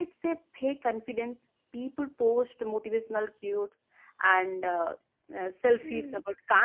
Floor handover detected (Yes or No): No